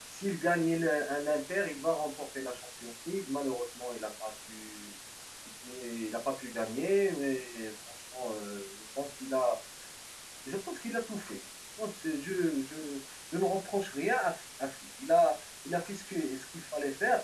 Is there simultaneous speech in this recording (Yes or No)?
No